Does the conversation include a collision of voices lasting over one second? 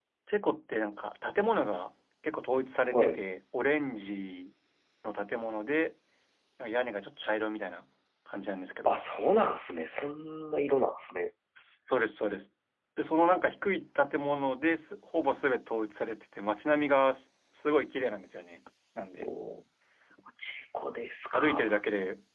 No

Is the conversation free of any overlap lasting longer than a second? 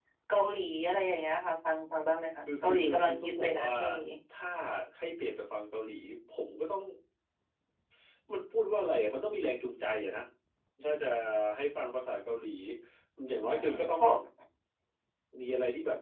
No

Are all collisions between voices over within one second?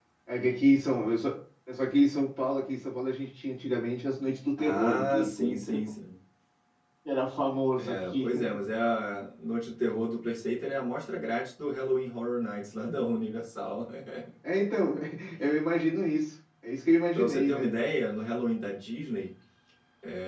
No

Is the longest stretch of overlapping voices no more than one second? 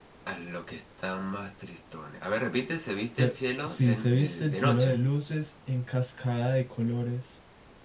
No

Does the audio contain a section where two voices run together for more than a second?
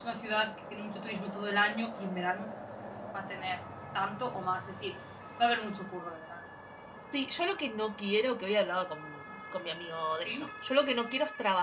No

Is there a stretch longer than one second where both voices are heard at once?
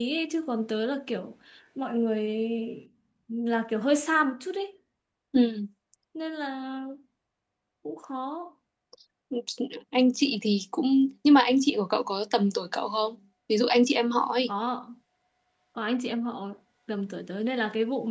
No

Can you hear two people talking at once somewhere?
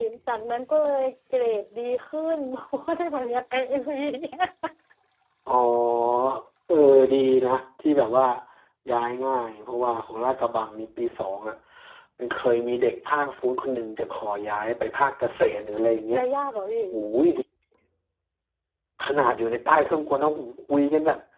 No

